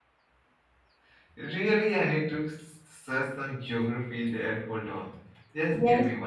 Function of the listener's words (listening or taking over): taking over